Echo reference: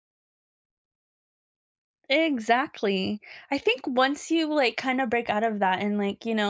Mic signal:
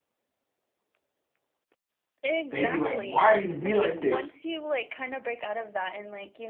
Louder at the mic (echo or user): user